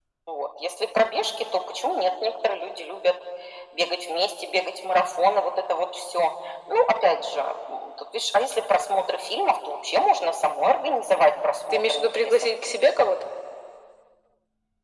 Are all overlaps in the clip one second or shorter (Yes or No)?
No